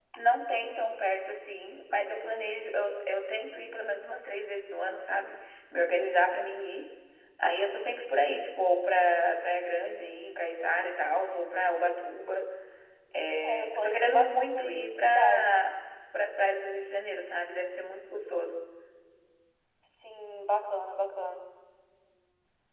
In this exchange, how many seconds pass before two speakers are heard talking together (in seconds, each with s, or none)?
13.4 s